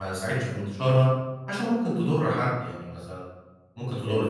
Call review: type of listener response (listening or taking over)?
listening